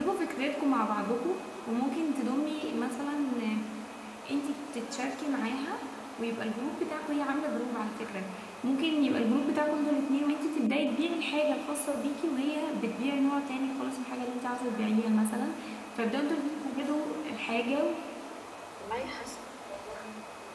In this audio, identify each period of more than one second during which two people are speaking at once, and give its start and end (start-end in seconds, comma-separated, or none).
none